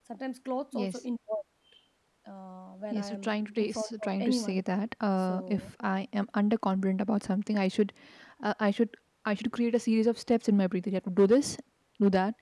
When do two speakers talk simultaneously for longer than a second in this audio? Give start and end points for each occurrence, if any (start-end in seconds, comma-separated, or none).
2.9-4.6